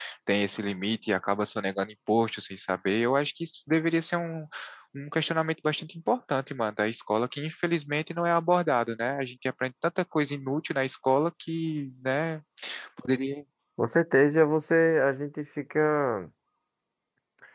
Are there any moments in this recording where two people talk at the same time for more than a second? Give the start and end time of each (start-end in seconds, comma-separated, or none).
none